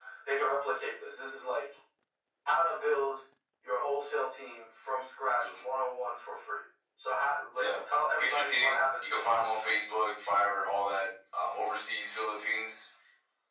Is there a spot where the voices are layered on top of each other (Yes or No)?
Yes